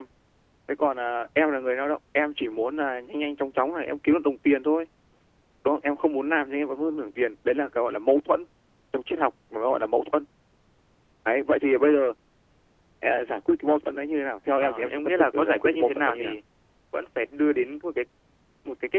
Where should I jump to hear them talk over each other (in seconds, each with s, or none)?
14.6 s